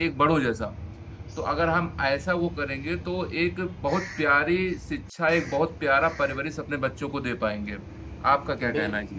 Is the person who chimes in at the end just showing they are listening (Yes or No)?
No